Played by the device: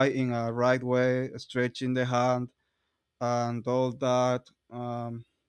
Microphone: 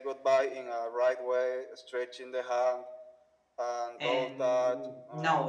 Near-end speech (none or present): present